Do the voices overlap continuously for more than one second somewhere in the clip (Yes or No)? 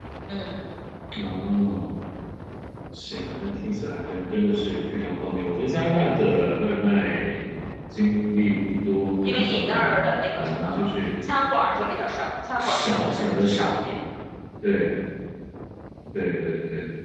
Yes